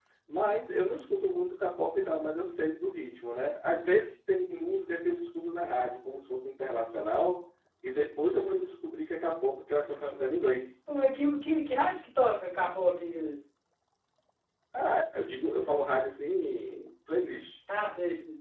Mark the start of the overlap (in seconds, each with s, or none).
none